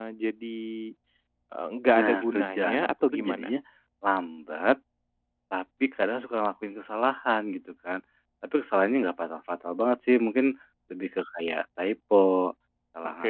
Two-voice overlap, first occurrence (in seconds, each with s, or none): 2.0 s